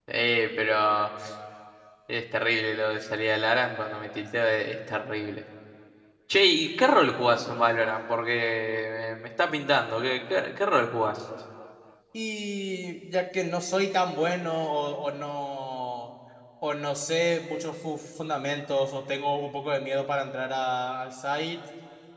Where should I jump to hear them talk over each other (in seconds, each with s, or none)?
none